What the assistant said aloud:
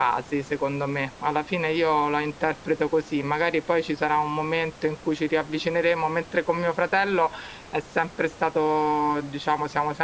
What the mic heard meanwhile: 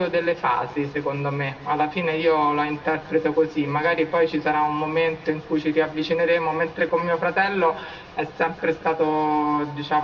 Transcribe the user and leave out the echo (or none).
none